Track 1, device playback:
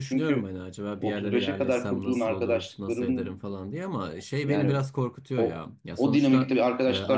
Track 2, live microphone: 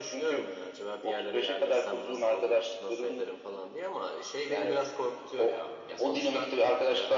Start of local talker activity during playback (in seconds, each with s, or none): none